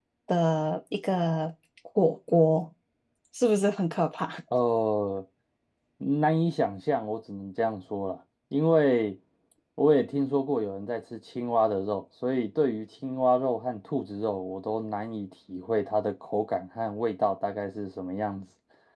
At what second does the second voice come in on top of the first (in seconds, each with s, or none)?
none